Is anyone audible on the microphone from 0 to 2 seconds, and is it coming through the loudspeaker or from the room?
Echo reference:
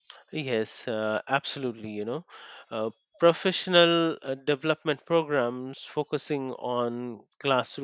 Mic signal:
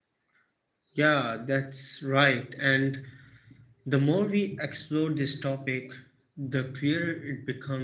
user only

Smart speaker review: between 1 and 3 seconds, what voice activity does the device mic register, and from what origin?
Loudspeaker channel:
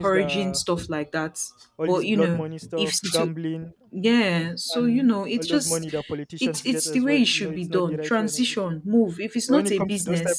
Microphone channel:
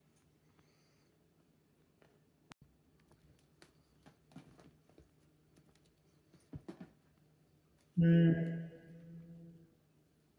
neither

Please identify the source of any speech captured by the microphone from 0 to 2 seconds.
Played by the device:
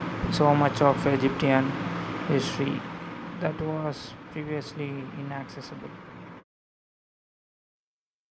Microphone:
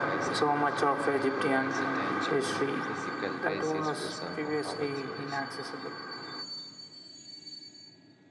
both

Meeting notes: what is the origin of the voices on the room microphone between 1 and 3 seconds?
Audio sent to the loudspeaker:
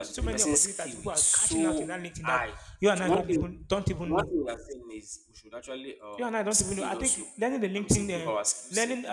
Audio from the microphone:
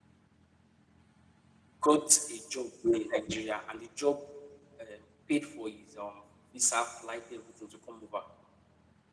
user only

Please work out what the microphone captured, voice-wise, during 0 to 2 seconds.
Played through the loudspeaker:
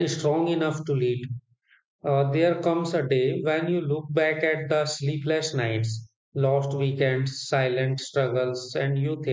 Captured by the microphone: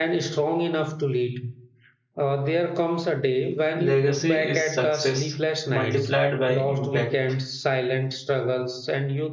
echo only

